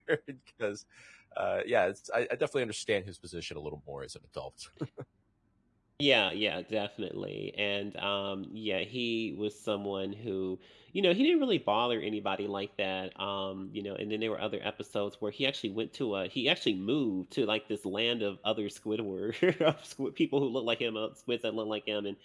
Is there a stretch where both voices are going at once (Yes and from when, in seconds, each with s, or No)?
No